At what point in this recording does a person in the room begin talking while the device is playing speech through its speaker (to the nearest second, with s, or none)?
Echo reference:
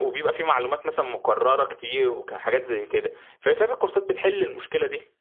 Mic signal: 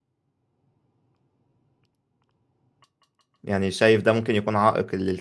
3 s